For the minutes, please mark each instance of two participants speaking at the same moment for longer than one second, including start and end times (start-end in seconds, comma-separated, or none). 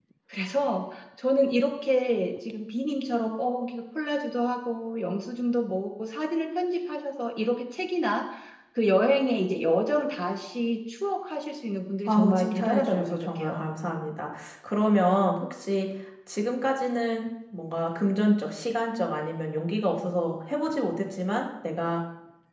12.1-13.6